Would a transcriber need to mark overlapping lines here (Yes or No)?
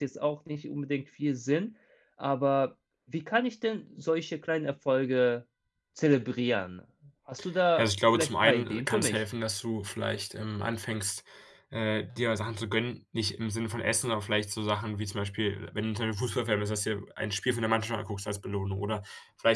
Yes